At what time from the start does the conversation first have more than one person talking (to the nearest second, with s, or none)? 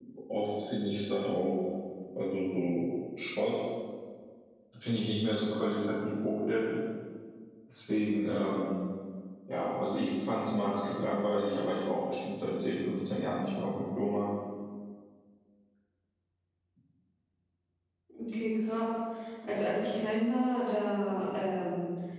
none